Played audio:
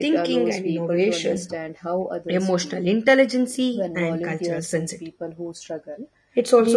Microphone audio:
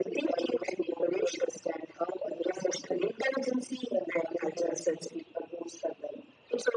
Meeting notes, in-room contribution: none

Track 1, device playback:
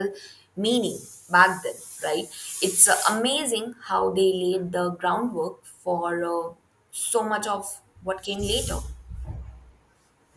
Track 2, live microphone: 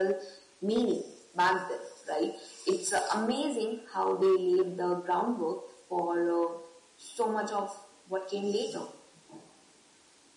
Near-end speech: none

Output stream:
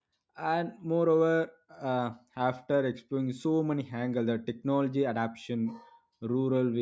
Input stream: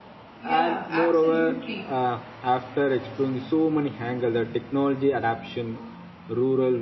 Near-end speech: present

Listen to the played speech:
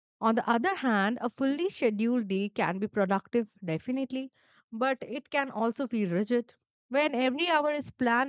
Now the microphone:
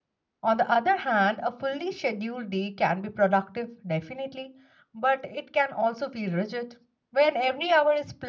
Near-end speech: none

